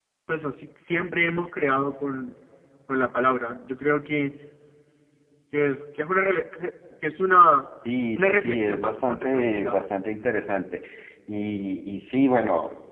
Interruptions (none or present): present